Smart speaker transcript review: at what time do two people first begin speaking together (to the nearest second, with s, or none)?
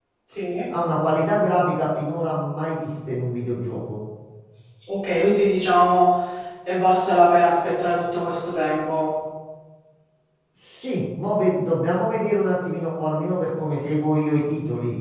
none